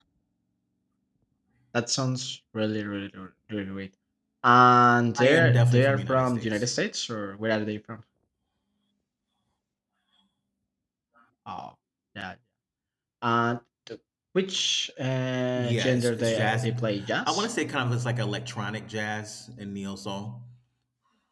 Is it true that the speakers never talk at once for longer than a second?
No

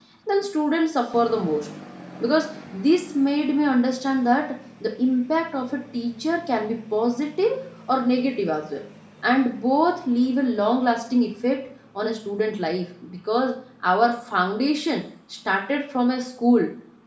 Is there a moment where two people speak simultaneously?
No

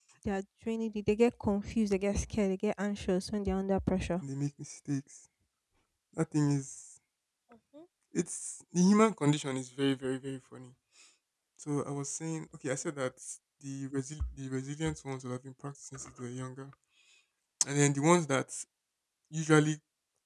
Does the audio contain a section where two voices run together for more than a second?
No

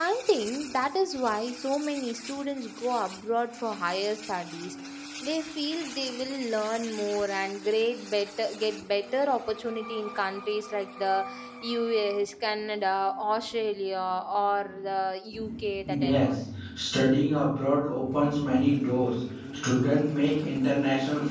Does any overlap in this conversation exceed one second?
No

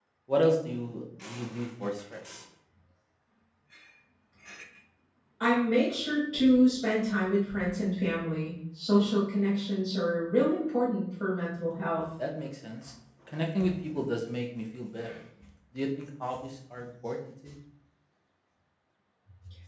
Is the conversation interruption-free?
Yes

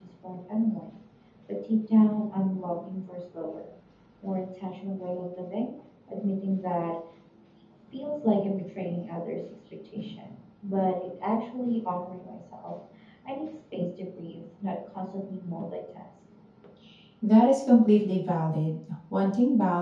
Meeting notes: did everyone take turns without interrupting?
Yes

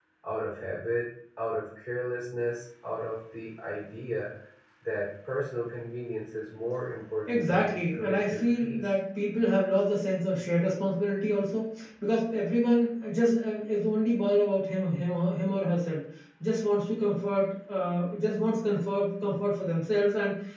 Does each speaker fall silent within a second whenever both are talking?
No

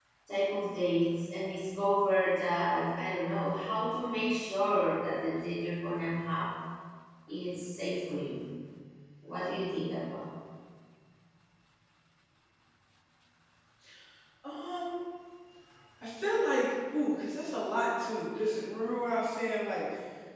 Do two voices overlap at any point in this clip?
No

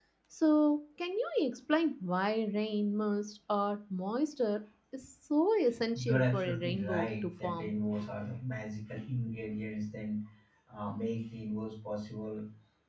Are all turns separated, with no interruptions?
No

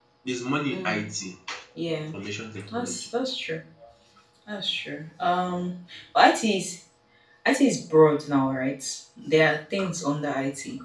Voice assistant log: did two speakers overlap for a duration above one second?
No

